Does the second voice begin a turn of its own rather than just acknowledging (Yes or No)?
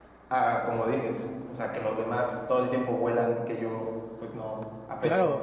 Yes